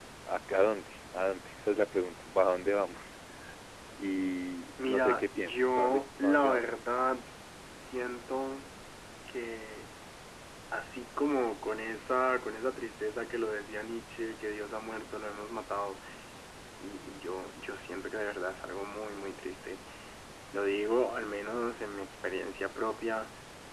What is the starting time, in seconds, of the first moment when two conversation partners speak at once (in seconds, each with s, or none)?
4.8 s